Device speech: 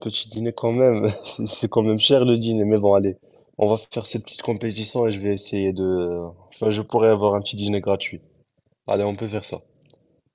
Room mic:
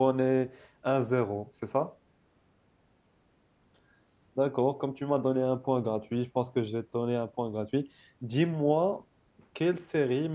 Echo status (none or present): none